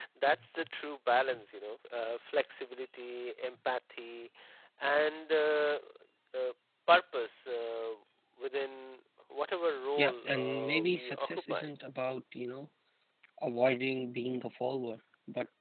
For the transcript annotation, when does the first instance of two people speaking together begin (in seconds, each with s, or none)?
9.9 s